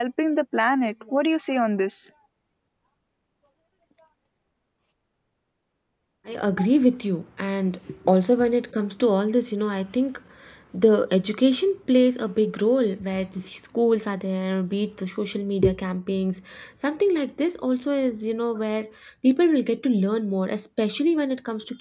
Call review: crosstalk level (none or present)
none